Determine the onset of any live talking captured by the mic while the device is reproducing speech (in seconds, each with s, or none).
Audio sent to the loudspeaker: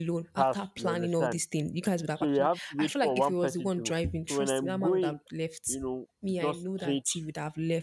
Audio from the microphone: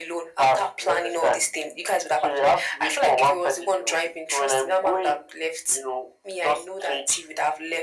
none